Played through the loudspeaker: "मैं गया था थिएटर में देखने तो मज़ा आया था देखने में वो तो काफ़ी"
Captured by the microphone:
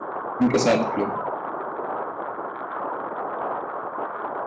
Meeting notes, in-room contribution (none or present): present